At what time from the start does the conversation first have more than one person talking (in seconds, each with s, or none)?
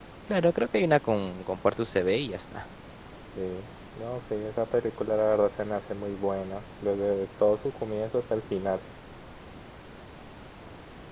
none